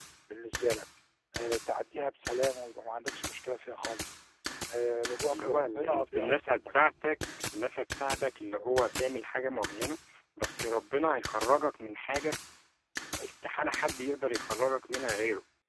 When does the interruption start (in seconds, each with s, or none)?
5.3 s